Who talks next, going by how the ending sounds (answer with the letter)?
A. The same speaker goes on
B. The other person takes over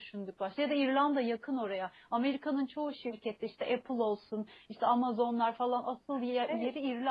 B